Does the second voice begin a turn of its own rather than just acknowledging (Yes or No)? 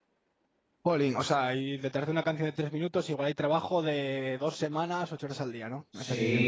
Yes